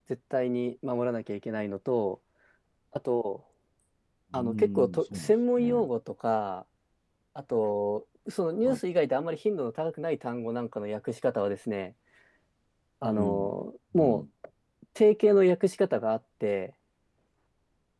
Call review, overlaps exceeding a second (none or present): present